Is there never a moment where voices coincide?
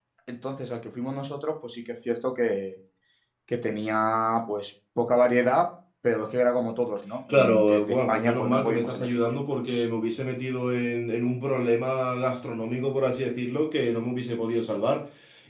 No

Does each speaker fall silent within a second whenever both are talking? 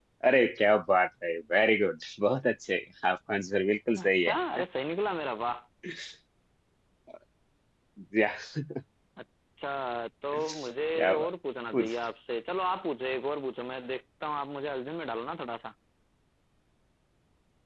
Yes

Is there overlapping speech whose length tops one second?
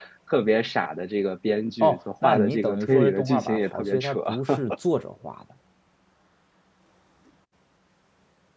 Yes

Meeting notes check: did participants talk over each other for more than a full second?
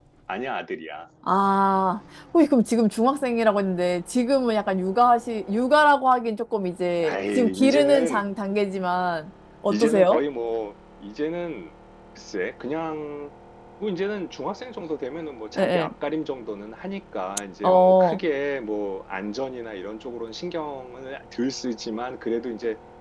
Yes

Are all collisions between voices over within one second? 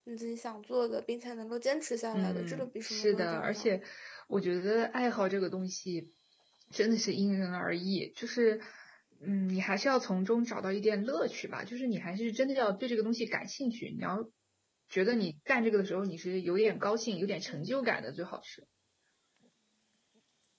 No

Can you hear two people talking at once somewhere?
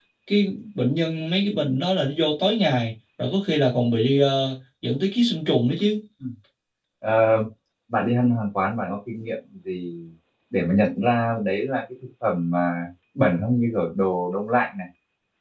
No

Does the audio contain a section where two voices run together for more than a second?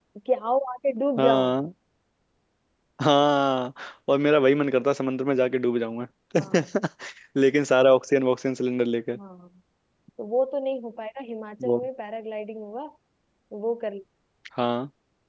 No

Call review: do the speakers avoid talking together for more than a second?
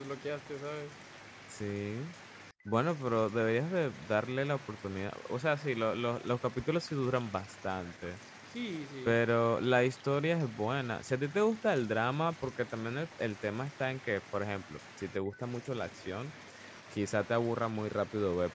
Yes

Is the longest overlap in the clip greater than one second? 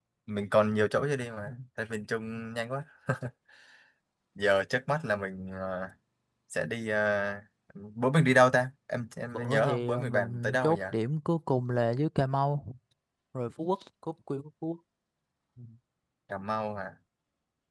Yes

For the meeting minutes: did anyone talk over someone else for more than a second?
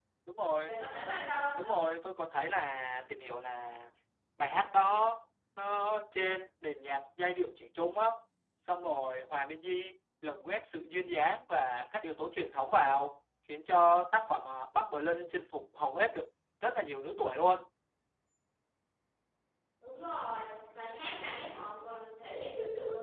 No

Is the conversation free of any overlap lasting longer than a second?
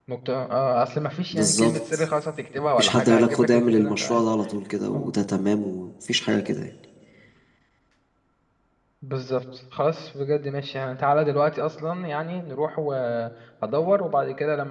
No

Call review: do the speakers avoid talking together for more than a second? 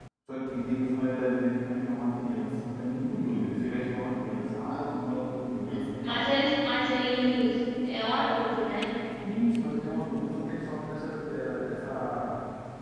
Yes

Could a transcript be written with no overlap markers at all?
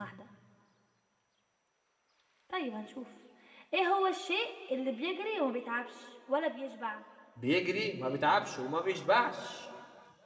Yes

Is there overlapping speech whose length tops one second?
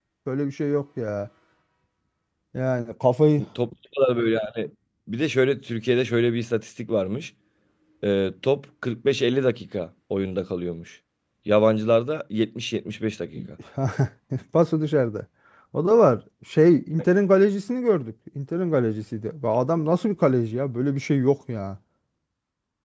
No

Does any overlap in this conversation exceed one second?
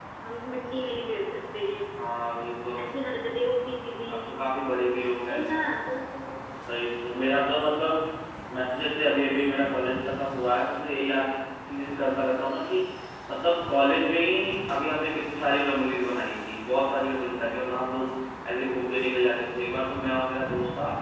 No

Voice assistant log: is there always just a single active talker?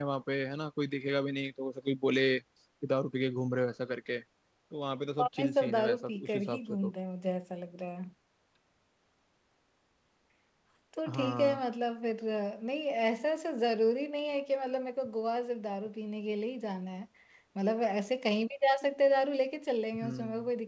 No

